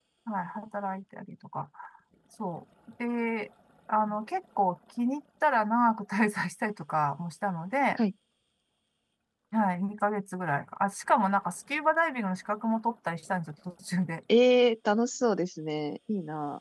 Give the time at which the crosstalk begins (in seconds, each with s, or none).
none